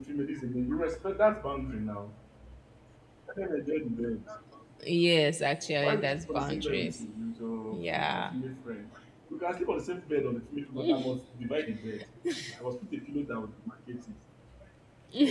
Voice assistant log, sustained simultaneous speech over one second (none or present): present